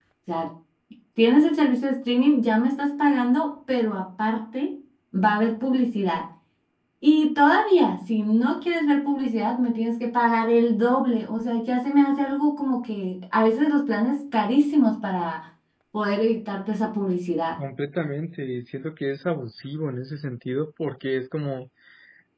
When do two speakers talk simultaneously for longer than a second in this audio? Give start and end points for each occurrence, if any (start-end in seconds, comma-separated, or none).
none